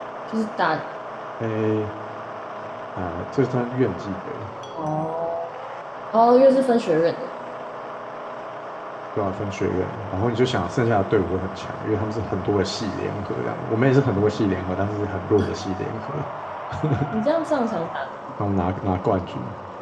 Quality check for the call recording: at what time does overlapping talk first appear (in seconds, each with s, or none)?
none